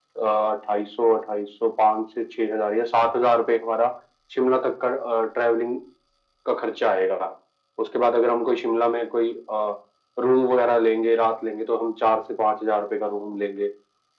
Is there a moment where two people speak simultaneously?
No

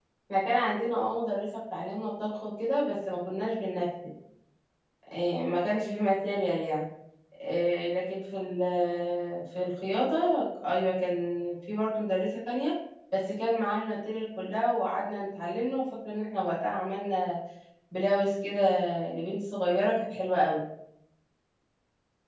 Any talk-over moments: No

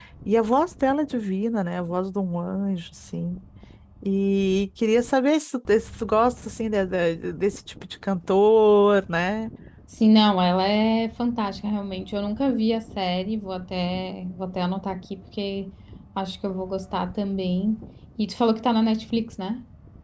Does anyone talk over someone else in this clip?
No

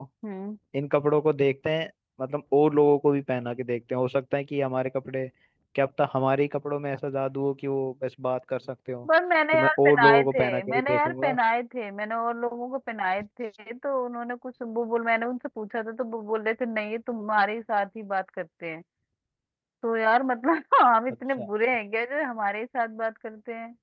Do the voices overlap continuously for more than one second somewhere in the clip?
Yes, from 9.5 s

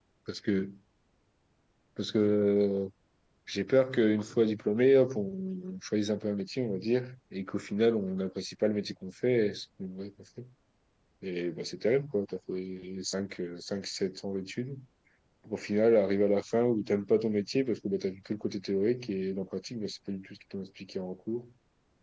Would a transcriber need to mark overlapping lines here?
No

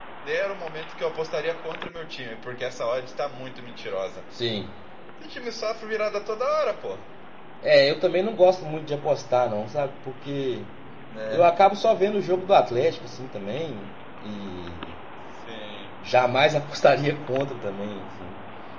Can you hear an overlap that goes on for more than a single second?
No

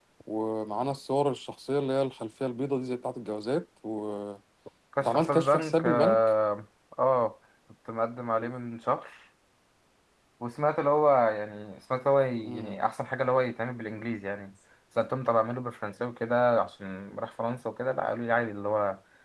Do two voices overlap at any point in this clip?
Yes, from 5.0 s

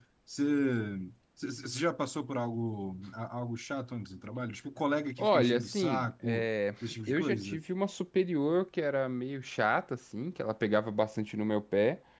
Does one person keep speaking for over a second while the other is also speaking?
Yes, from 5.2 s

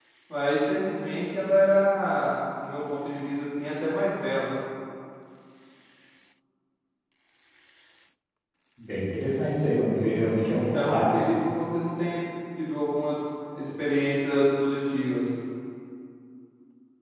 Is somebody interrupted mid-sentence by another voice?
Yes, from 9.9 s

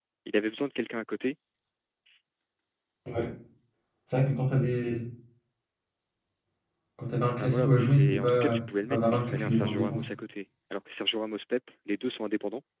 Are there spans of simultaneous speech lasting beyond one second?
Yes, from 7.4 s

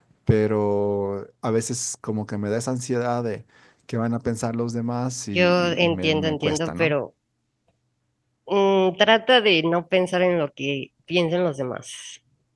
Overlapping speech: Yes, from 5.3 s

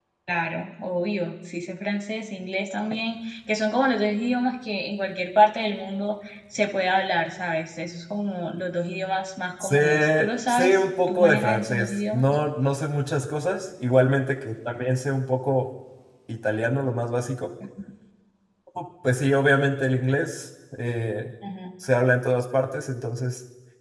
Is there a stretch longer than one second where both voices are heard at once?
Yes, from 9.6 s

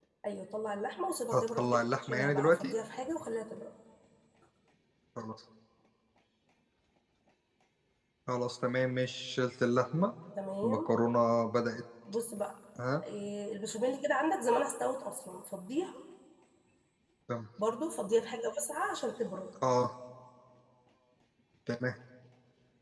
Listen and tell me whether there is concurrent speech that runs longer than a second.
Yes, from 1.3 s

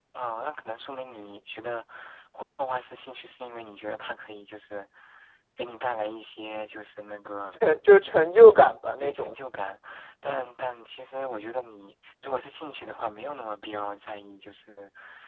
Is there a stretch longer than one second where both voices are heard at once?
No

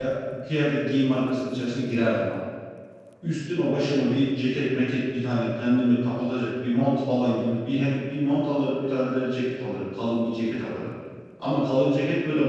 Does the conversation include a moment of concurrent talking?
No

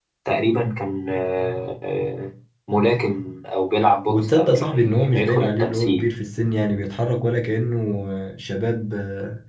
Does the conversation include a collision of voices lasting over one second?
Yes, from 4.1 s

